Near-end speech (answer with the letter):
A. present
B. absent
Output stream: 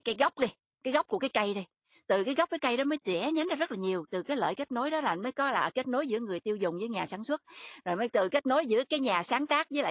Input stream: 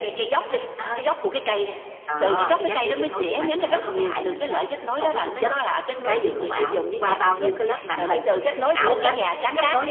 A